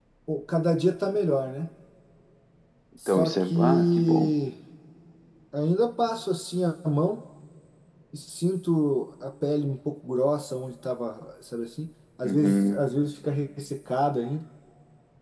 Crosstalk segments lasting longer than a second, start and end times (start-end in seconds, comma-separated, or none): 3.1-4.3